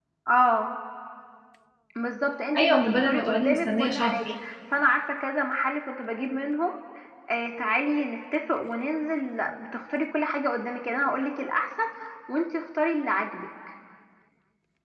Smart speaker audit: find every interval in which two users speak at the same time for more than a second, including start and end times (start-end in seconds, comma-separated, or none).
2.6-4.2